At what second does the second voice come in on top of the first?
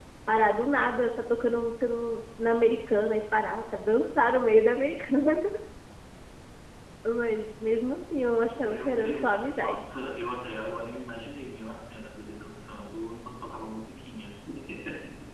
8.6 s

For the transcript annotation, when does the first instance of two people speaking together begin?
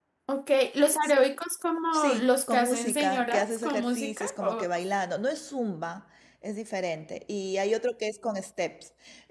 1.9 s

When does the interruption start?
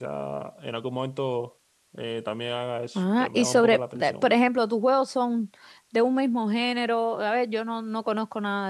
3.0 s

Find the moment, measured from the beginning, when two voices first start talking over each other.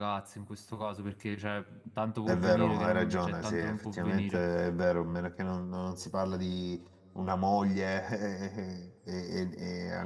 2.3 s

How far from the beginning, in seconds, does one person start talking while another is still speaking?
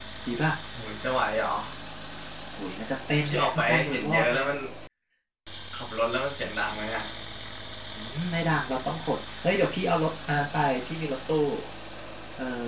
3.2 s

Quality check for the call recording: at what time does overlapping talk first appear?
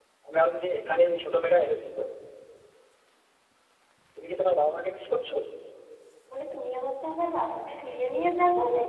none

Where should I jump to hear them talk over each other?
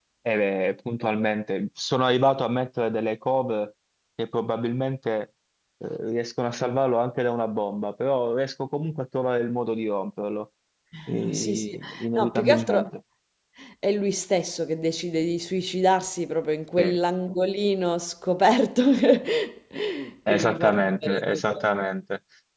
11.1 s

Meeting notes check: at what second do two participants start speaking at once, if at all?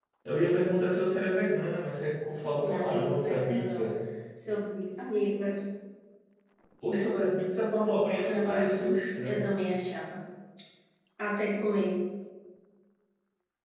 2.6 s

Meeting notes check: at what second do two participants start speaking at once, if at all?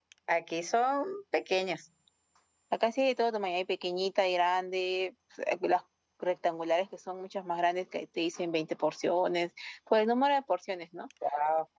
none

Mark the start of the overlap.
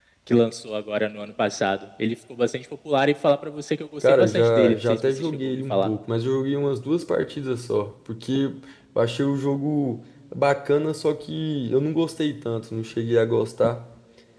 4.0 s

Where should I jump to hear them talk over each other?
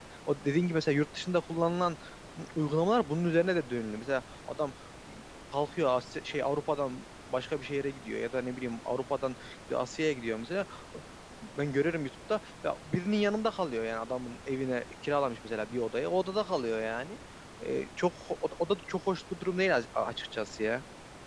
none

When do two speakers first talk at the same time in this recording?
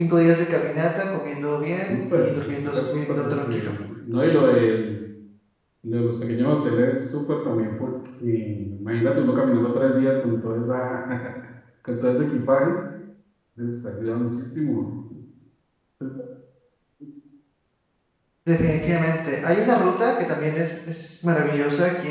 1.9 s

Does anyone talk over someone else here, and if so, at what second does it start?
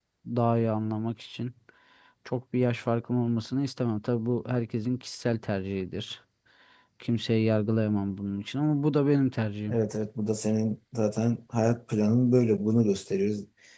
none

